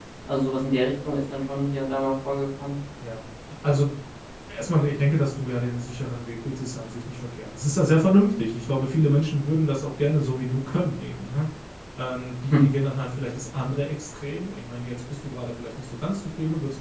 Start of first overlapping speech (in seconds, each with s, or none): none